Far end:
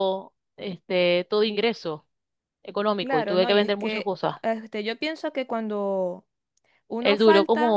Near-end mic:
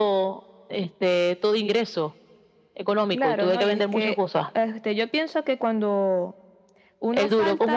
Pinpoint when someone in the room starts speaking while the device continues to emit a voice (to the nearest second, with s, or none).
none